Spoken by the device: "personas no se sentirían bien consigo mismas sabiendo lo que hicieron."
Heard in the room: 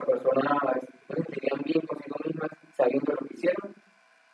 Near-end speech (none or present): none